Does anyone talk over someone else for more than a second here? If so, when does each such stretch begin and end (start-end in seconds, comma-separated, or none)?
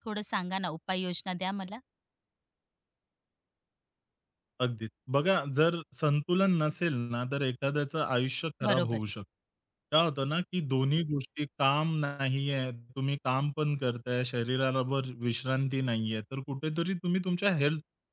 none